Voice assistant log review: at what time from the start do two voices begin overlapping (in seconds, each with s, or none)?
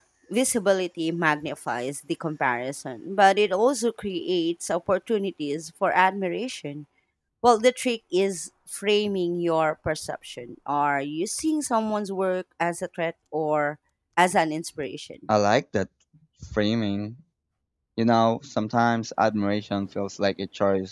none